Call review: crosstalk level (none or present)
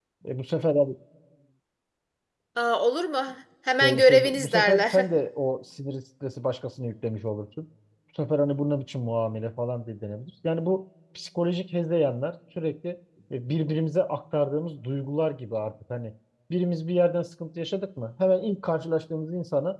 present